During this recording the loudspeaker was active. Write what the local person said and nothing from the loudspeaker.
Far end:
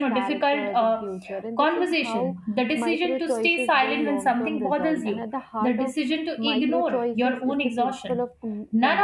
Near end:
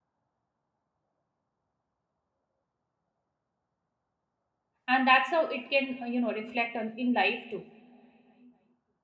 and that's how it can uh, you know reflect on in life too

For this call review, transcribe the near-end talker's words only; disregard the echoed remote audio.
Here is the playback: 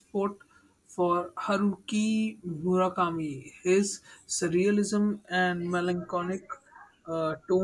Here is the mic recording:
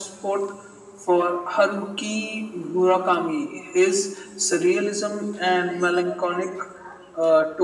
none

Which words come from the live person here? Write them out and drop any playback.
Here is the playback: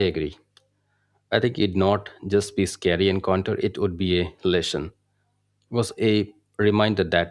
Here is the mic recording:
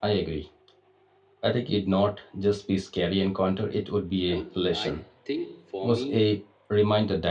And I think for me,

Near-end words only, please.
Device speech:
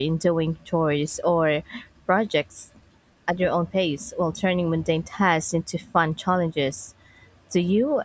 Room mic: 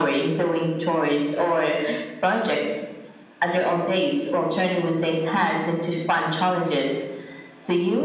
none

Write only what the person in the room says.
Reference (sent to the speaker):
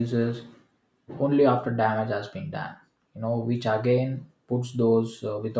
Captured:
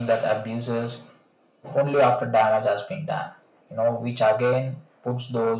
none

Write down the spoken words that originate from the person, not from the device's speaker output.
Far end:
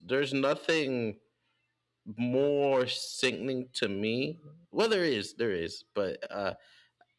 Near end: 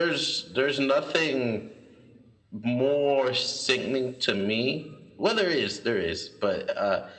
none

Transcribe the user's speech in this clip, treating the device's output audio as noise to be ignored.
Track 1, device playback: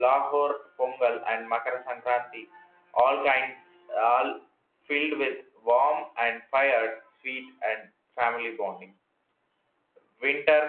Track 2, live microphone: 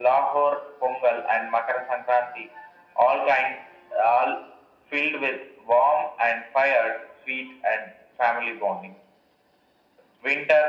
none

